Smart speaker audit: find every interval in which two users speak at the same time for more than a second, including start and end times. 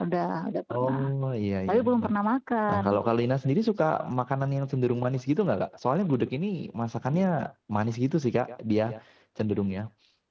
none

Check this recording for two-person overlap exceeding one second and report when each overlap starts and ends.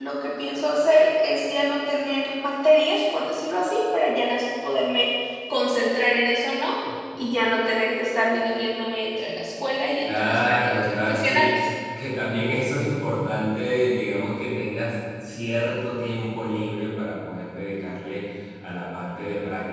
10.0-11.5

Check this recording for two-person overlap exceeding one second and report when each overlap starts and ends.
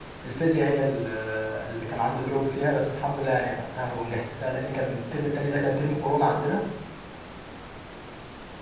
none

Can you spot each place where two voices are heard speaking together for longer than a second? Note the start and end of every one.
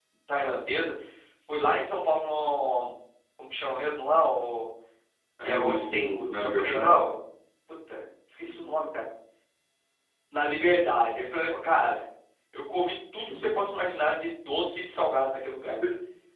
5.4-7.1

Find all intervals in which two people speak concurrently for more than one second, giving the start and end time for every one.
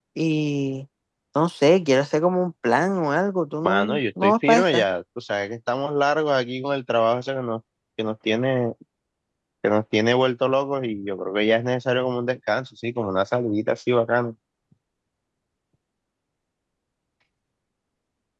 3.6-4.8

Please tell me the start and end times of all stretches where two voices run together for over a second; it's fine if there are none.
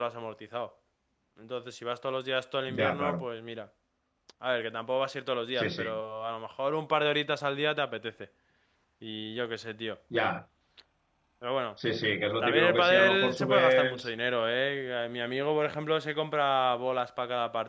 12.4-14.1

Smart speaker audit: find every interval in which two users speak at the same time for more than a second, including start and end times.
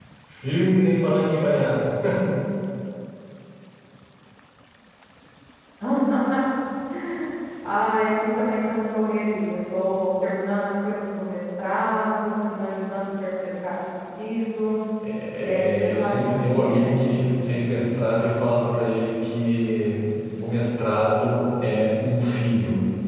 15.4-16.9

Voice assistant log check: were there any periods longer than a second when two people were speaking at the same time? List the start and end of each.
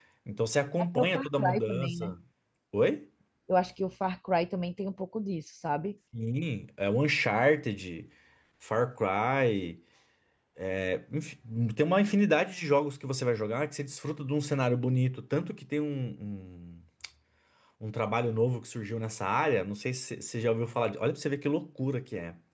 0.8-2.1

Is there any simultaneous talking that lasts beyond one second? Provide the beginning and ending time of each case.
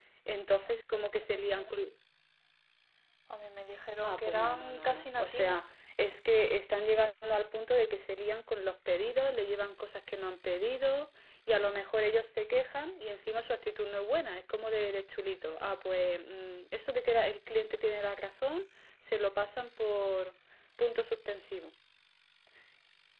4.0-5.6

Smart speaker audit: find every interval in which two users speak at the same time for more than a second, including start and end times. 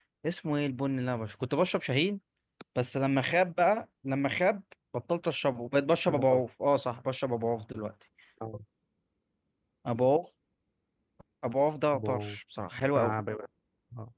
none

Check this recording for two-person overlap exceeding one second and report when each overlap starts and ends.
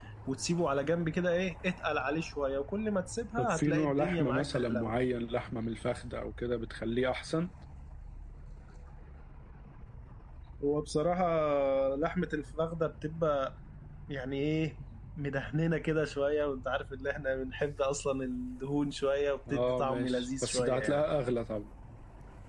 3.4-4.9, 19.5-21.0

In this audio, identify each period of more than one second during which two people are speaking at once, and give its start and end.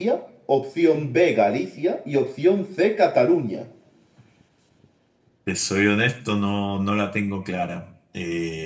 none

